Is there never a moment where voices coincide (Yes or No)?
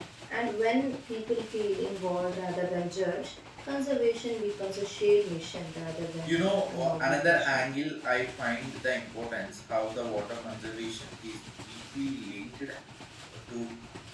No